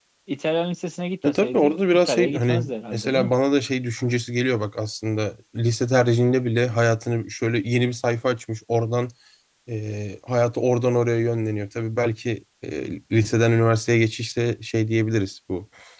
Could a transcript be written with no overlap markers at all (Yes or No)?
No